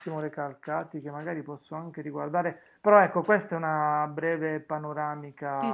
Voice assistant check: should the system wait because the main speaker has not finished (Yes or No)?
No